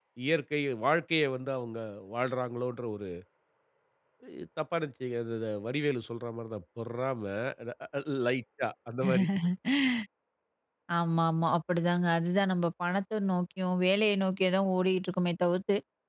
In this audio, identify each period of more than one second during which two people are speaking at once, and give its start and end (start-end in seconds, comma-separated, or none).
none